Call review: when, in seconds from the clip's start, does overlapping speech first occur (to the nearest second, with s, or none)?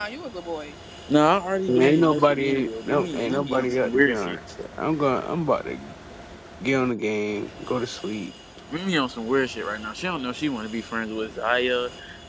2 s